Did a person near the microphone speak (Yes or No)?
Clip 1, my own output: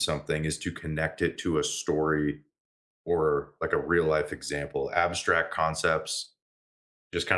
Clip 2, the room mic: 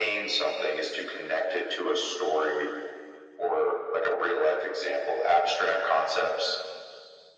No